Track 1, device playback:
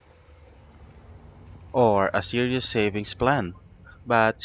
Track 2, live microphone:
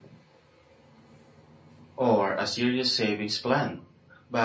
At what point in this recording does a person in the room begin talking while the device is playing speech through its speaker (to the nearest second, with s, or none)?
none